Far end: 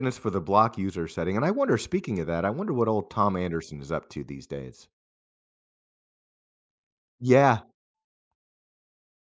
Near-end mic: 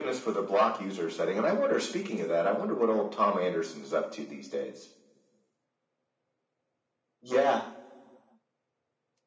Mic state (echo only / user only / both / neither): echo only